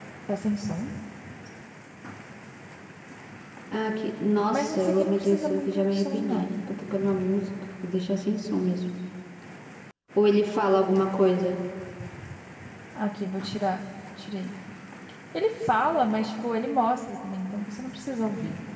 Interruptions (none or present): present